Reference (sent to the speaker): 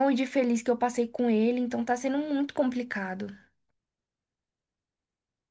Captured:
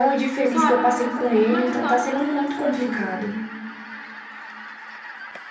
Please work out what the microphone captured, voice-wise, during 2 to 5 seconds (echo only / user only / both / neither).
both